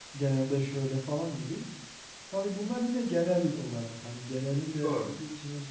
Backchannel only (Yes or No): Yes